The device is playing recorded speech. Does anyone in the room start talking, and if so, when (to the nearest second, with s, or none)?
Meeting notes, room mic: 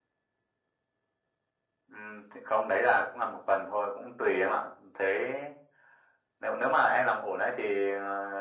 none